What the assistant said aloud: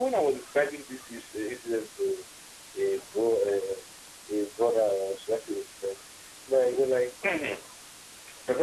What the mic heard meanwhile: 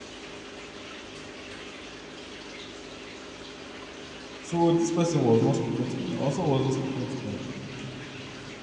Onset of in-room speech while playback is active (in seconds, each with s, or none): 4.4 s